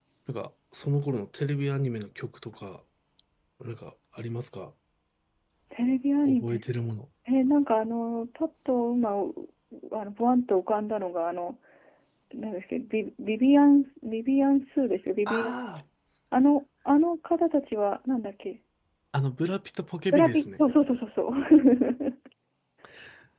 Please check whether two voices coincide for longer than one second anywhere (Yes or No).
No